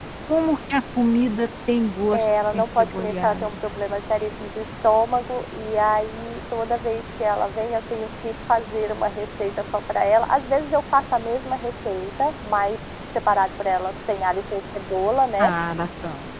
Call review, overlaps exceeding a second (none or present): present